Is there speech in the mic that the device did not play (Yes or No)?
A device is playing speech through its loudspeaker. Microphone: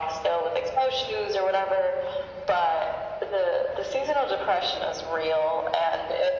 No